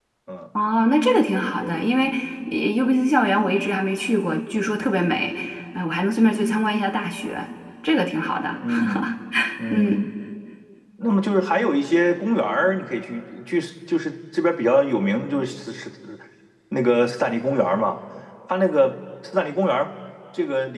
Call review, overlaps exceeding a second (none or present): none